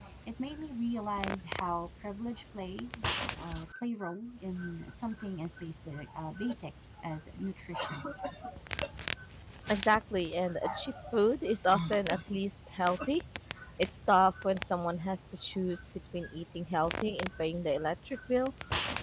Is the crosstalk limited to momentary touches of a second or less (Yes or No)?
Yes